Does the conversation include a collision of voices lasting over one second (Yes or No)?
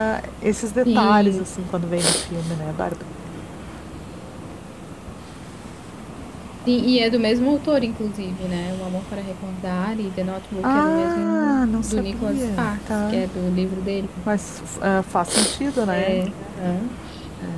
Yes